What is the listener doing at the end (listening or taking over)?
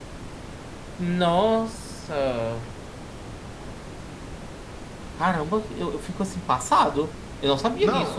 taking over